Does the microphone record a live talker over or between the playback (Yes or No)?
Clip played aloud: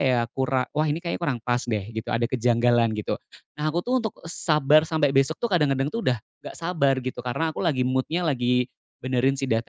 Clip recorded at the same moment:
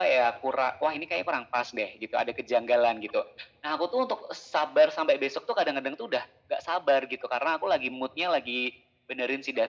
No